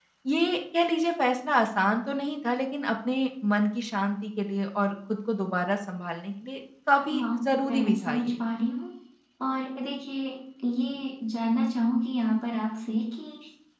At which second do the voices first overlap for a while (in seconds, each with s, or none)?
7.1 s